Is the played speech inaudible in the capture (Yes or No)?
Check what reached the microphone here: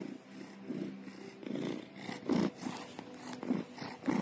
Yes